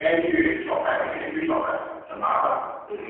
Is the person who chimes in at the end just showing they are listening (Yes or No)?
No